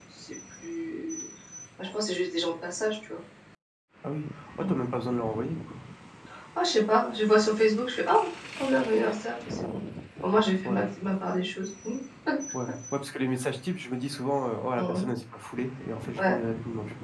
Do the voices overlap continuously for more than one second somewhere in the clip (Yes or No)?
No